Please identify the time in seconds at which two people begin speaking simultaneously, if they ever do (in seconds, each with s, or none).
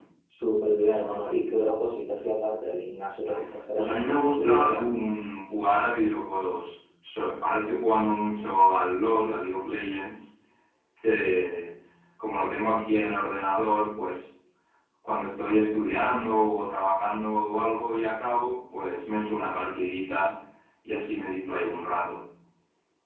3.8 s